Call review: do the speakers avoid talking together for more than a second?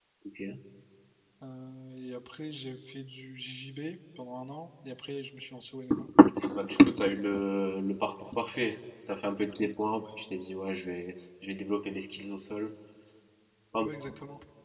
Yes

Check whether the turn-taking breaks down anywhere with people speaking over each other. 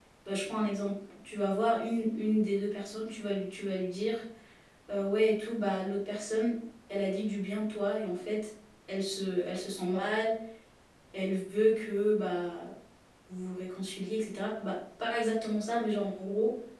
No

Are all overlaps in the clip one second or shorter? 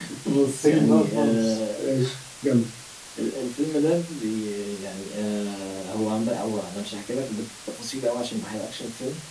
No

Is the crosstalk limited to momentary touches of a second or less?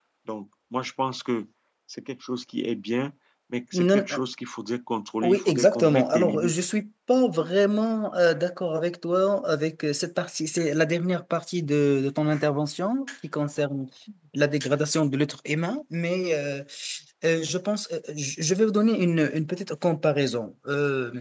No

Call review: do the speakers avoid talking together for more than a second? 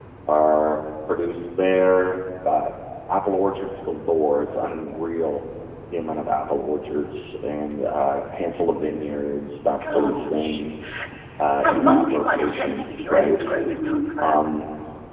No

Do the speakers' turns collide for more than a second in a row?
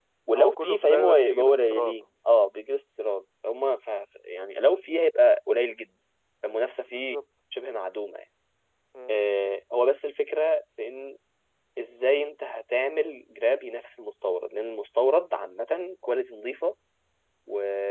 Yes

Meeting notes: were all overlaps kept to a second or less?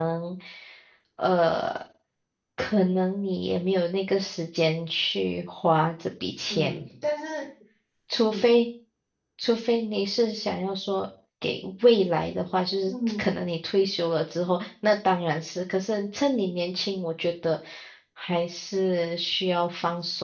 Yes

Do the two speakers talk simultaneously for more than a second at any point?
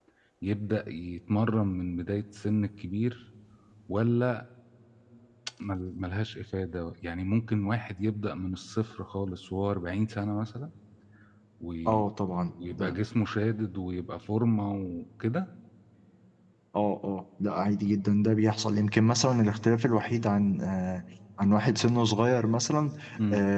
No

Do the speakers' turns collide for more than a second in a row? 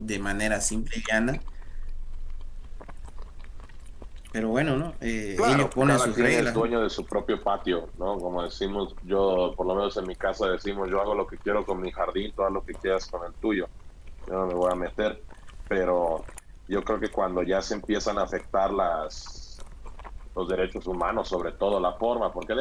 Yes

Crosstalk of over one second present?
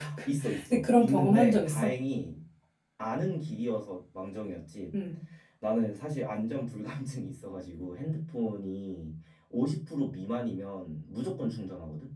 Yes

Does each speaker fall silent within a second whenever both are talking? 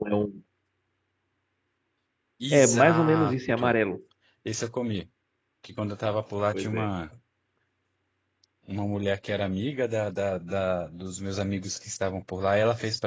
No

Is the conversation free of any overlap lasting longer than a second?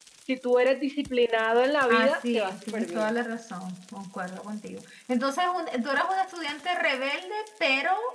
No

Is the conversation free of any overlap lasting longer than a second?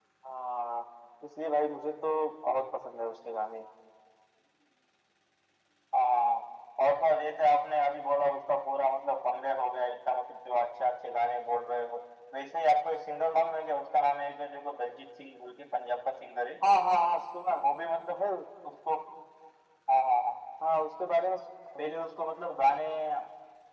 Yes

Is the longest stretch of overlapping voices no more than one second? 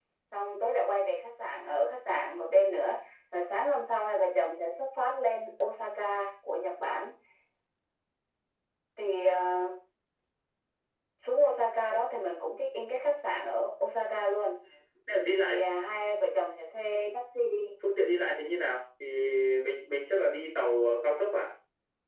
Yes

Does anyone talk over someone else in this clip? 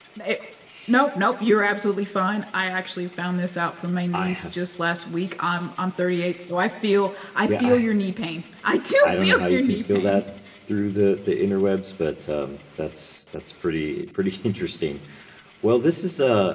Yes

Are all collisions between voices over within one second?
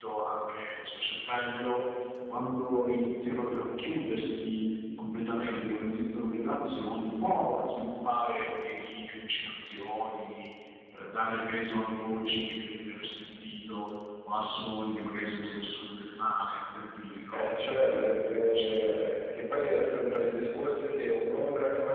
No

